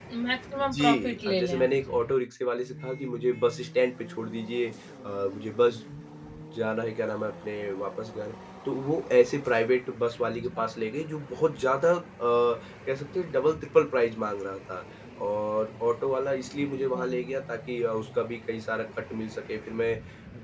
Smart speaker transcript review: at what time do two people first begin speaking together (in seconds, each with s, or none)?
0.6 s